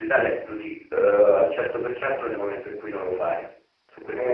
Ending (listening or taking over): taking over